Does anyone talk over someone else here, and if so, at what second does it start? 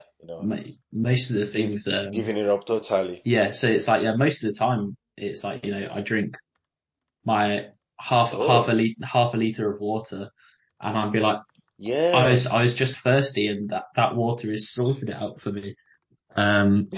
1.0 s

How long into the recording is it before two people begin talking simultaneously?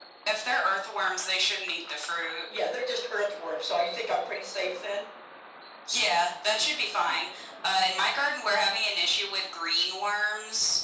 none

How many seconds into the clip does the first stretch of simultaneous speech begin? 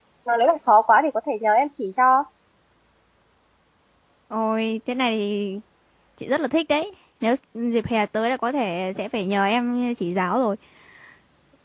none

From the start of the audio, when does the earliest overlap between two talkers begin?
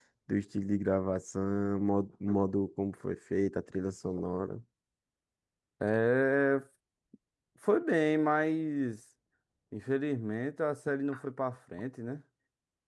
none

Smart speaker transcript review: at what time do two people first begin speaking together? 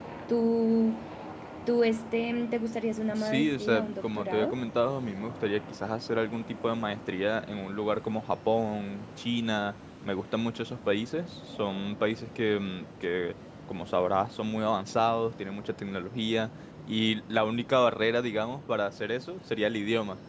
3.1 s

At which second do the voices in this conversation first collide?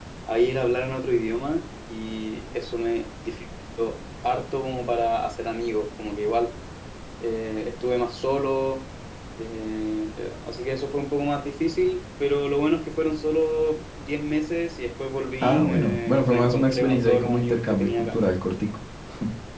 15.4 s

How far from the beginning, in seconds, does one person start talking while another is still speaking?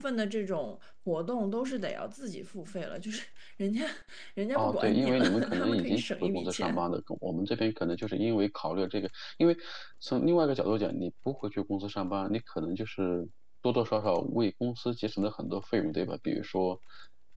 4.5 s

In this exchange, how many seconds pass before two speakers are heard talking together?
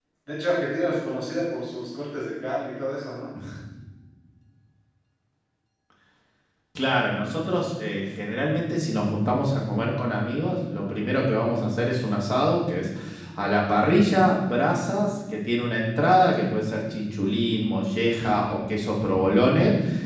none

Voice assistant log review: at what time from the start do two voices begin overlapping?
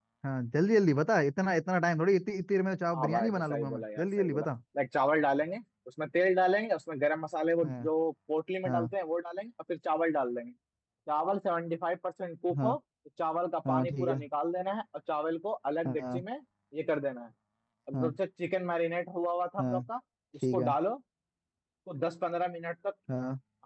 2.9 s

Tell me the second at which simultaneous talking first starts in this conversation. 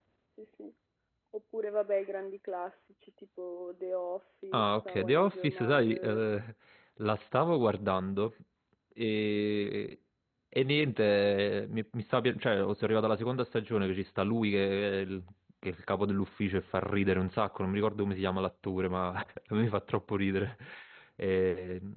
4.5 s

